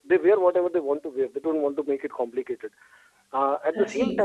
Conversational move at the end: listening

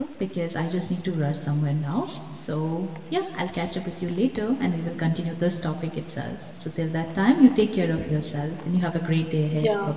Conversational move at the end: taking over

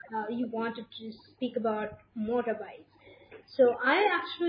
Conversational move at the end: listening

